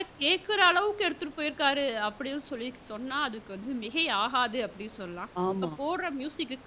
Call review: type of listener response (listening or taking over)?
listening